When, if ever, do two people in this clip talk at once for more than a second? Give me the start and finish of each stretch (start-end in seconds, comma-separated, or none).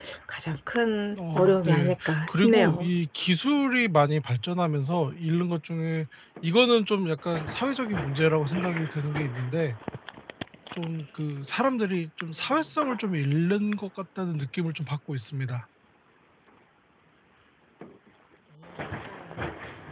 1.3-2.9